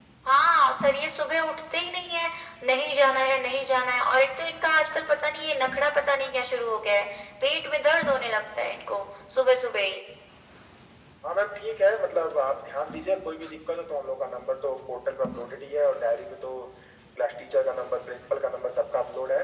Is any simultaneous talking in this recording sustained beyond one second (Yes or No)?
No